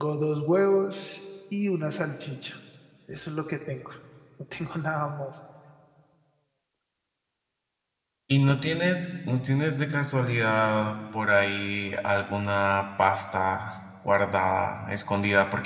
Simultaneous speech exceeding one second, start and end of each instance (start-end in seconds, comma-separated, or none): none